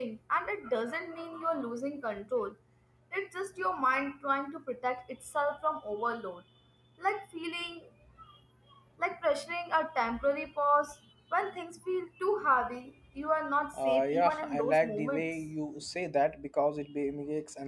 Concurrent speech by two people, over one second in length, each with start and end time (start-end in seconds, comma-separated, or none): 13.8-15.3